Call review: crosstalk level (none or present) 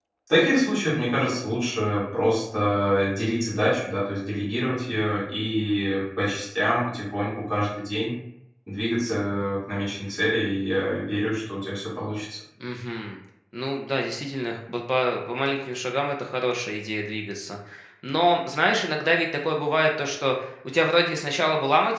none